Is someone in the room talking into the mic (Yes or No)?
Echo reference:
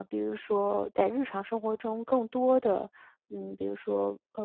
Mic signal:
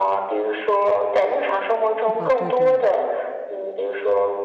Yes